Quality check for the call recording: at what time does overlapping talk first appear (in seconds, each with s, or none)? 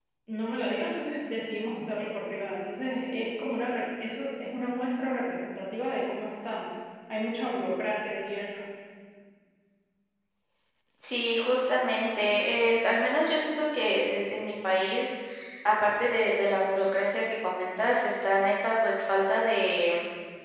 none